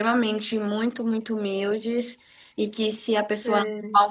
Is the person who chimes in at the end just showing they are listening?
Yes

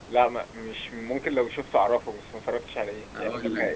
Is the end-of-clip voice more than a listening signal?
Yes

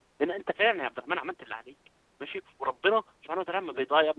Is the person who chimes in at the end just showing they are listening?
Yes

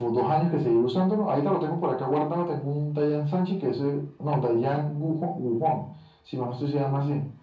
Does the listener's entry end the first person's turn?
No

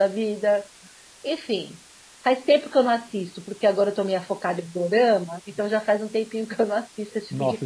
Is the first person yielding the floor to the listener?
Yes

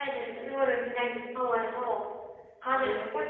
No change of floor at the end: Yes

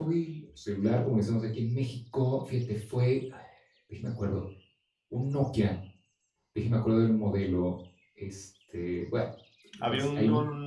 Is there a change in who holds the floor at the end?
Yes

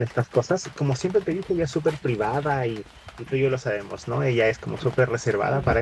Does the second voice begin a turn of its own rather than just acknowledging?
No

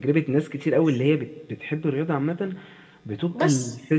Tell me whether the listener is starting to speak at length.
No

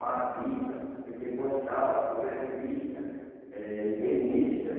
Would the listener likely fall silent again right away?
No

